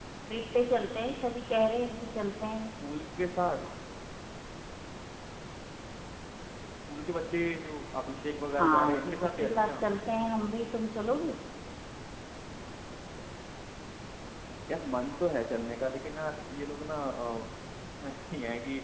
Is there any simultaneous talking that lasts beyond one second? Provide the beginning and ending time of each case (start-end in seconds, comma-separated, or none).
8.5-9.8